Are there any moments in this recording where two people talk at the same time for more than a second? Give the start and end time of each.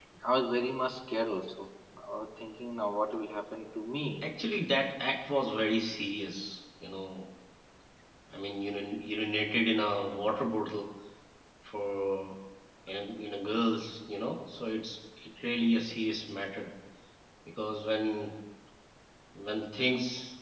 none

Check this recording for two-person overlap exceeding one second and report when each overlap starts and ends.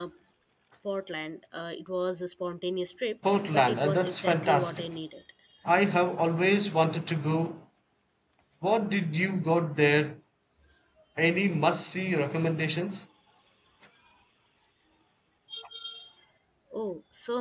3.3-4.8

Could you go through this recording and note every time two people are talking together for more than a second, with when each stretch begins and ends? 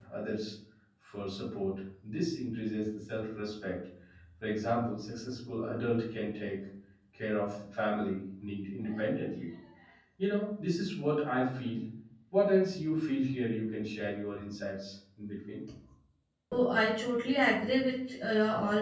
none

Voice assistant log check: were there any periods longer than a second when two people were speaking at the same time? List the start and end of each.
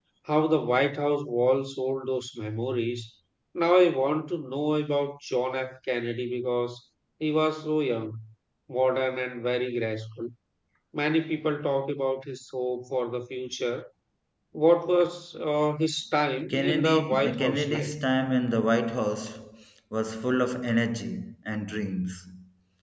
16.5-17.9

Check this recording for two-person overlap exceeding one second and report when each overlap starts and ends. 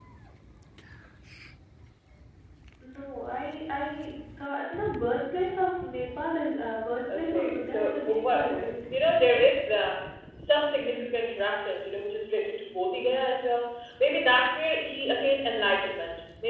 7.1-8.8

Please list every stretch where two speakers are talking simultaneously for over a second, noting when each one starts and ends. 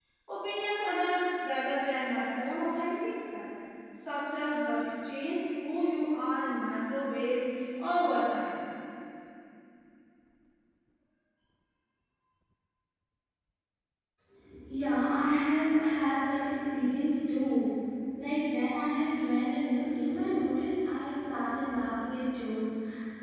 none

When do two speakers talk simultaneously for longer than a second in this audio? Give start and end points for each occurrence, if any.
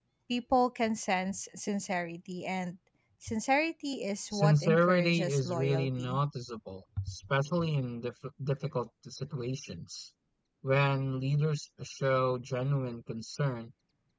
4.3-6.2

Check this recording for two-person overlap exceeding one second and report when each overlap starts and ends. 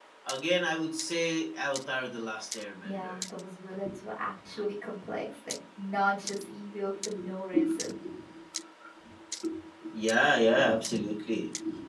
none

